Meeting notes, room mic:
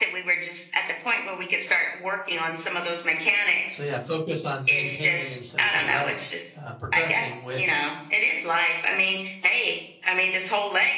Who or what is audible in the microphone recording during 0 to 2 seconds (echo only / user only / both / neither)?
echo only